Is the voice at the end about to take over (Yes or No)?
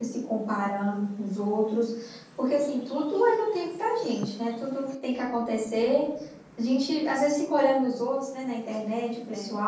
No